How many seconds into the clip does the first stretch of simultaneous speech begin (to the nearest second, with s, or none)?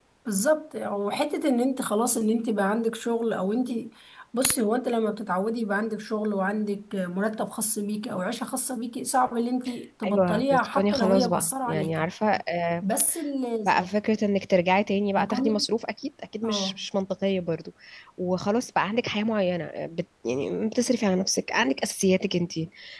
10 s